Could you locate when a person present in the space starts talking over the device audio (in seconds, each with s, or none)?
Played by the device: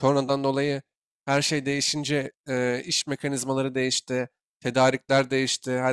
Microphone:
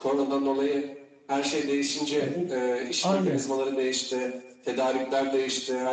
2.2 s